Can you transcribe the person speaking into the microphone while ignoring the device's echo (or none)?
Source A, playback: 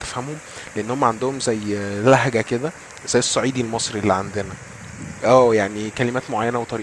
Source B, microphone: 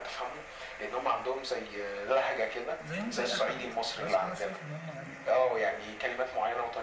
زيهم زي اي حد بس انا شايف ان هم يعني